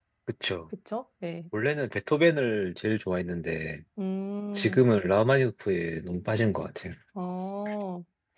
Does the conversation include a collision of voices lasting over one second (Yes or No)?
No